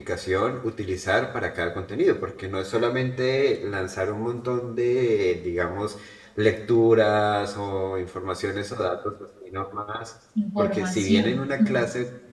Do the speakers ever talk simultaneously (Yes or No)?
Yes